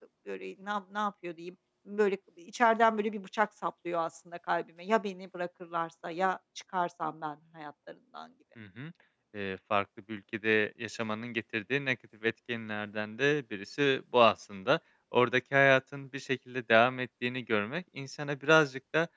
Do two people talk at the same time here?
No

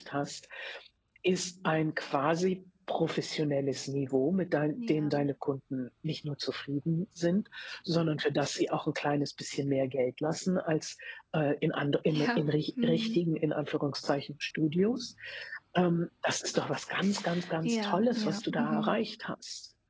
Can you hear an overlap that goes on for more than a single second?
Yes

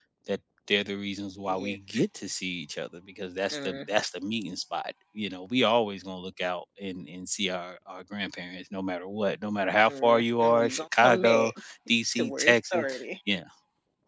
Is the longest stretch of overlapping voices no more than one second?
No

